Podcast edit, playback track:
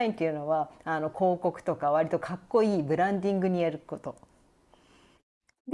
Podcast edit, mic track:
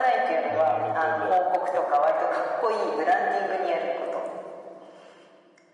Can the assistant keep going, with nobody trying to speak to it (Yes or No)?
No